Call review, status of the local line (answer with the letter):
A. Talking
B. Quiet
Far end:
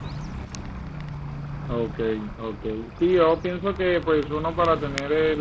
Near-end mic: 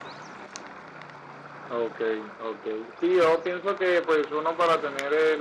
B